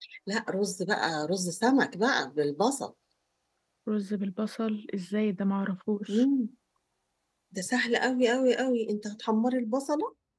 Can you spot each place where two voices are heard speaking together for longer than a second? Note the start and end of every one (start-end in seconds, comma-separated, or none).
none